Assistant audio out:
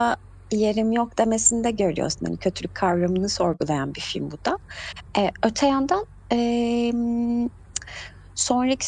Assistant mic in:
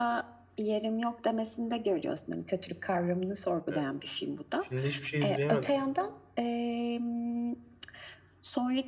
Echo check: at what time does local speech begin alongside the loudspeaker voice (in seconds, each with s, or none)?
3.7 s